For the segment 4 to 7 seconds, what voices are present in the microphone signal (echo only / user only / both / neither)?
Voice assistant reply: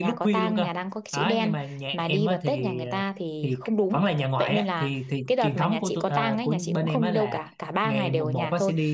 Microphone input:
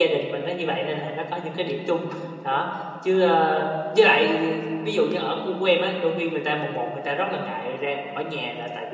user only